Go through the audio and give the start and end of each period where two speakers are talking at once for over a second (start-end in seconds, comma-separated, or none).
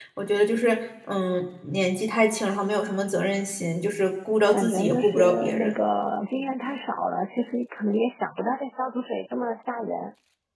4.5-5.7